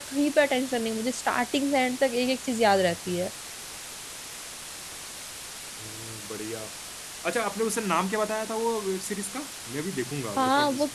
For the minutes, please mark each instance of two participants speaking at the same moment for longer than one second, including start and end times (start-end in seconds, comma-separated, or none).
none